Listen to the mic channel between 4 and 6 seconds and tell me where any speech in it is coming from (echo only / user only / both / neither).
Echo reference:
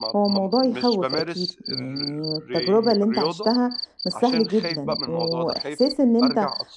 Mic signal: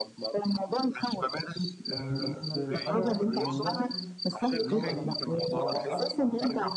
both